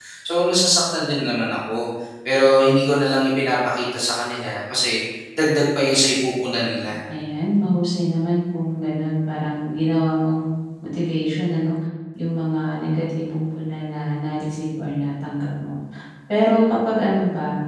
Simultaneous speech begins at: none

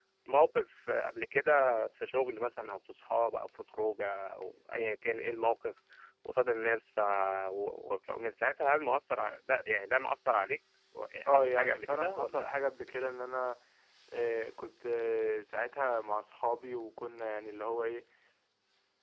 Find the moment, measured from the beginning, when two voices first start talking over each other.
11.3 s

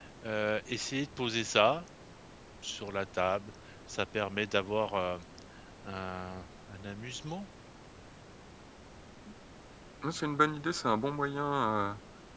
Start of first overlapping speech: none

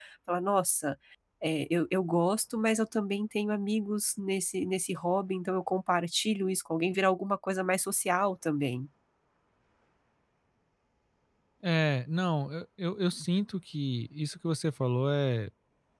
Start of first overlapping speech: none

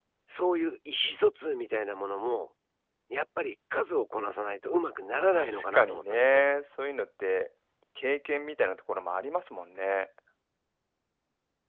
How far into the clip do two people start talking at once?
5.2 s

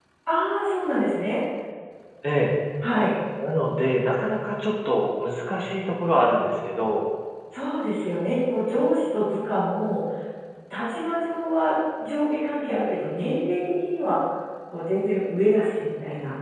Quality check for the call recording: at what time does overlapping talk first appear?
none

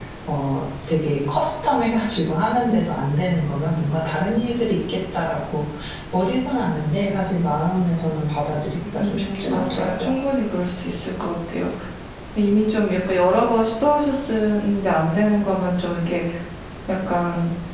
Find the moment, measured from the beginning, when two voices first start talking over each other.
9.0 s

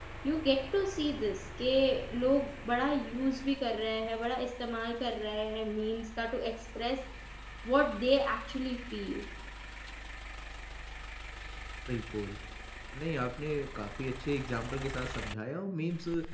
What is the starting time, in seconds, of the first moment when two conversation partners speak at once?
none

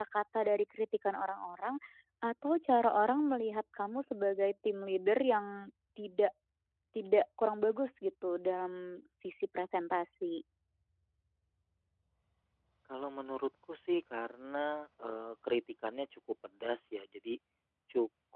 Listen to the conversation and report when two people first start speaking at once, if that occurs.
none

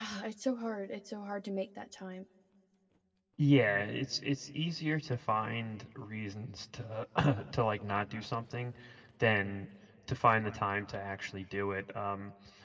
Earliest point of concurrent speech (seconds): none

